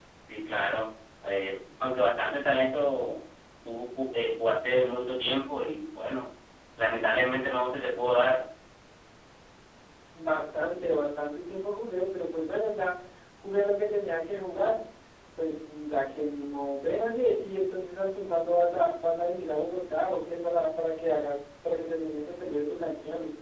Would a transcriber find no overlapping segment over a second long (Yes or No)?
Yes